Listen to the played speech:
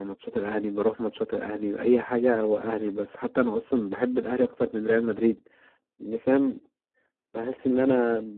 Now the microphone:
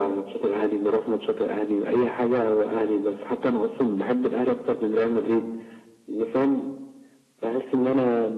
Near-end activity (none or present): none